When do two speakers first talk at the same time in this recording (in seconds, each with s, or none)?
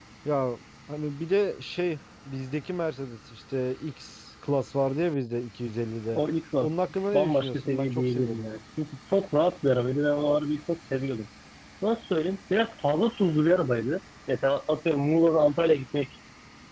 7.1 s